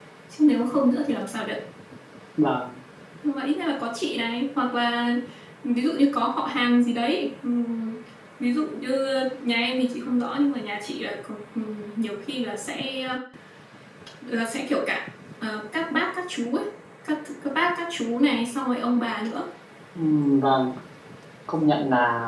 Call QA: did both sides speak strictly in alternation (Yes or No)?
Yes